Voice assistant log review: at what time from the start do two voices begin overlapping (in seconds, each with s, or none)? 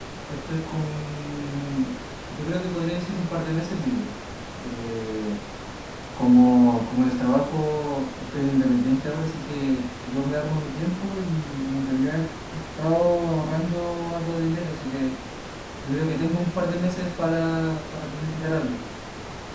none